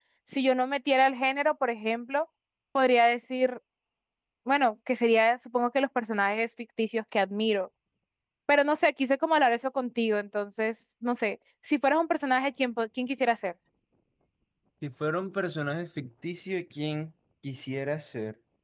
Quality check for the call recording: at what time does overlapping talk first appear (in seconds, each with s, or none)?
none